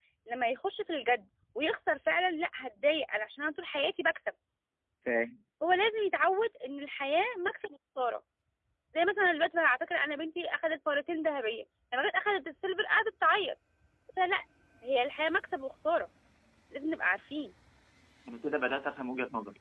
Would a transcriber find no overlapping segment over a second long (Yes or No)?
Yes